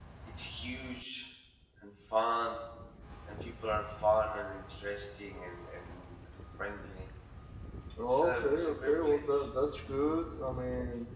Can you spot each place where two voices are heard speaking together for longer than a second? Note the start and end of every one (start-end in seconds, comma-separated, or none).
8.0-9.5